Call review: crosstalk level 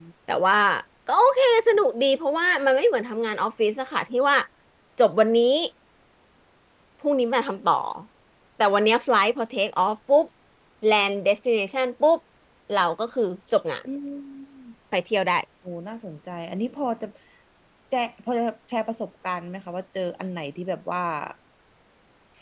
none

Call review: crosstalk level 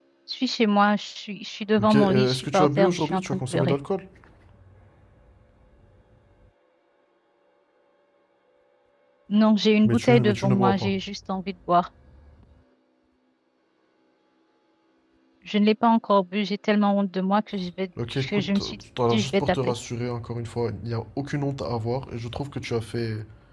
present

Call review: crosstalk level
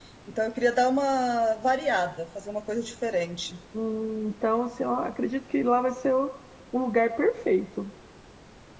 none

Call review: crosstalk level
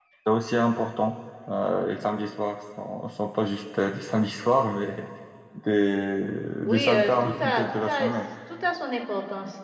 present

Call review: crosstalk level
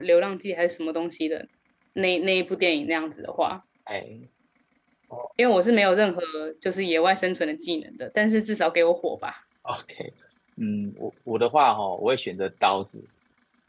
none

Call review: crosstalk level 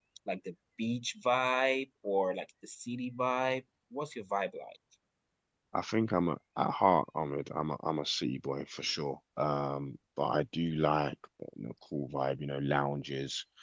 none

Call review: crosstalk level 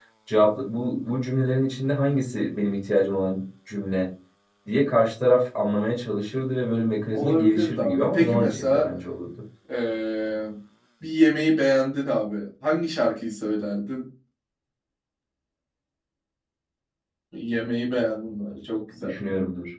present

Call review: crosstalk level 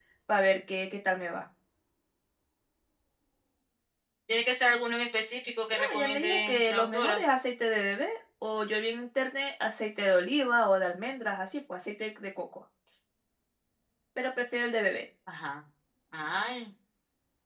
present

